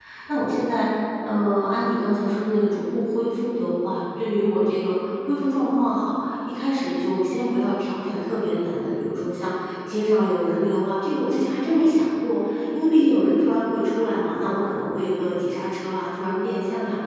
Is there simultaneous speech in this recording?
No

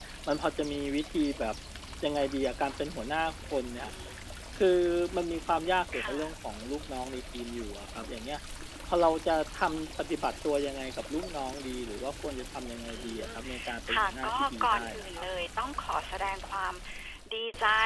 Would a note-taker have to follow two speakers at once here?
Yes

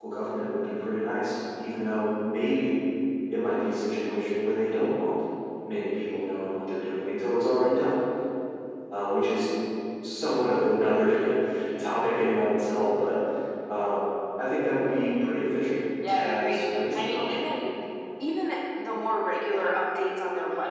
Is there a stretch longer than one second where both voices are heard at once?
Yes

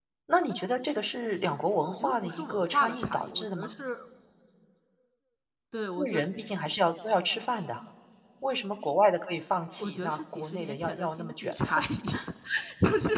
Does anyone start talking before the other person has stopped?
Yes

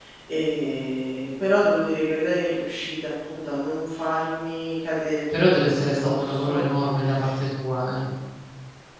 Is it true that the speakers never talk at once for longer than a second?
No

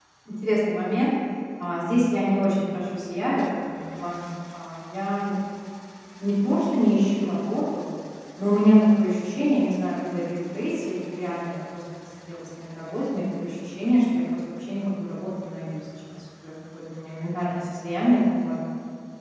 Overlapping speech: No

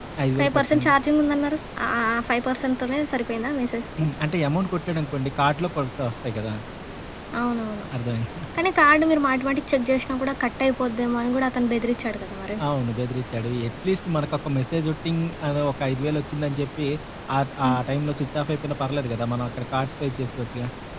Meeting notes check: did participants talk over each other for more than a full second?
No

